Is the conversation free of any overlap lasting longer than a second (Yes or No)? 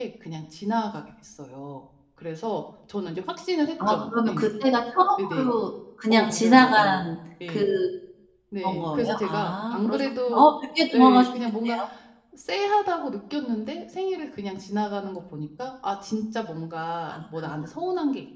No